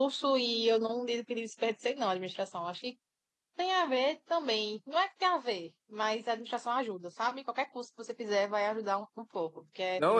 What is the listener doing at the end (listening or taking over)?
taking over